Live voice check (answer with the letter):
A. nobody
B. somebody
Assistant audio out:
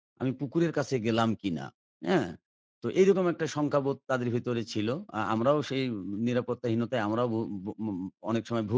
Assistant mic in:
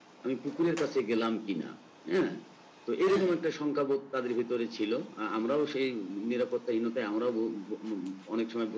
B